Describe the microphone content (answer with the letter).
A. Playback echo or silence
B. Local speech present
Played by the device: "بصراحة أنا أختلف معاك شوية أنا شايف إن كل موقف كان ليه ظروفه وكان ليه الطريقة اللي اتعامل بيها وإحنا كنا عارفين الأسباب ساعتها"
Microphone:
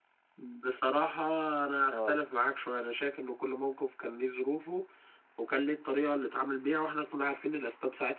B